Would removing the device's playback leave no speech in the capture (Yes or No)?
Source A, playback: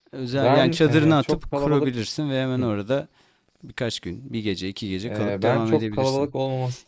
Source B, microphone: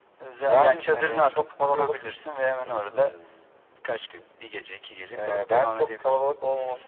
No